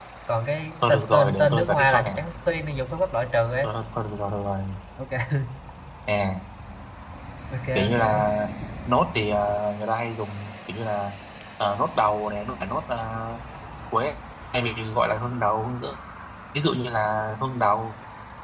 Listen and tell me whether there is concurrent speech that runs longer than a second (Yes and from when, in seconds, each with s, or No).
Yes, from 0.9 s